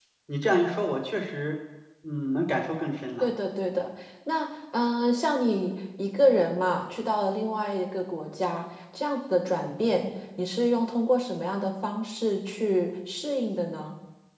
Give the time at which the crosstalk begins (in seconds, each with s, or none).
none